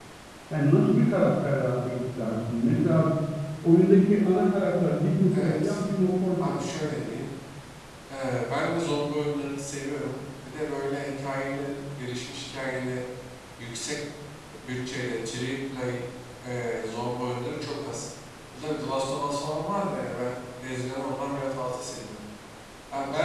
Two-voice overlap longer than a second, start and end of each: none

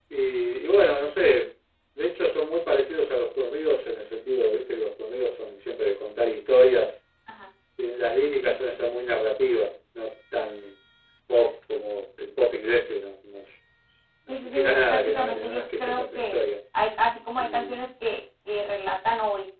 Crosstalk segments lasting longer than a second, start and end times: 14.3-16.4

